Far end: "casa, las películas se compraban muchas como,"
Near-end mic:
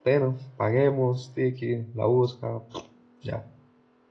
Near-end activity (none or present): present